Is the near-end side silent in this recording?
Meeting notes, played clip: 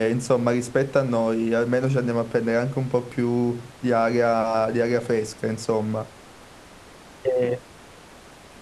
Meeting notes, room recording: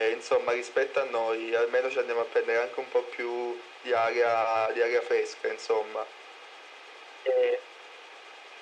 Yes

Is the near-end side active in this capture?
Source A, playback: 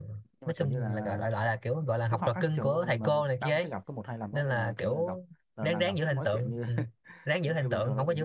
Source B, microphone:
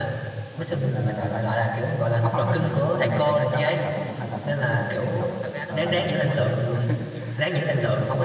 Yes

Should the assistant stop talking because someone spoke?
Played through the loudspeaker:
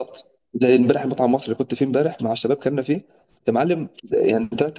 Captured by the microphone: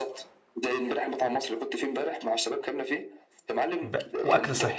Yes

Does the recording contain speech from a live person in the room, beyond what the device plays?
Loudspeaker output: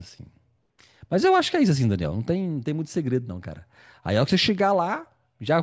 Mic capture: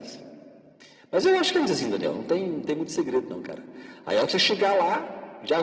No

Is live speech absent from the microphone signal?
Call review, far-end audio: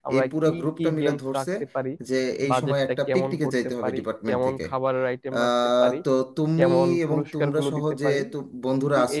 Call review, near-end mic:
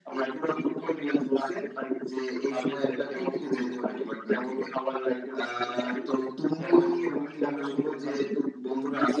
Yes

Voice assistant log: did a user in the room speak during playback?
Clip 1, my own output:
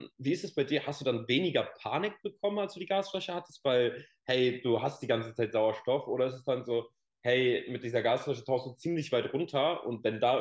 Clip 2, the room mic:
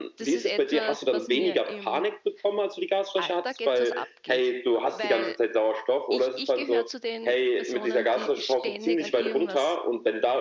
Yes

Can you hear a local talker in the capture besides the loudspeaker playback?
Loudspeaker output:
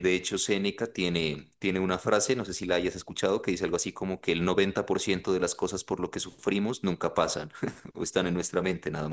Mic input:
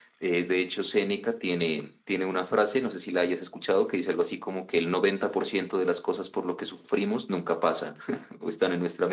No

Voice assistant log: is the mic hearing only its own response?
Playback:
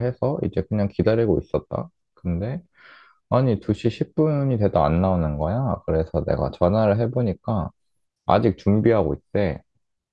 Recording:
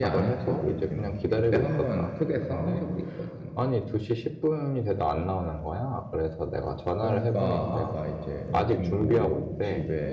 No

